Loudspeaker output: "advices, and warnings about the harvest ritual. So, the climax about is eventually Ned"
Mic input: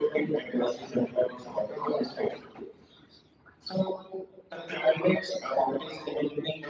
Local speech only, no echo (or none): none